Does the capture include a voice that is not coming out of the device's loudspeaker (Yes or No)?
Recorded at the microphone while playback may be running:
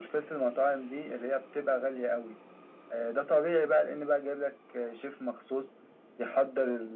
No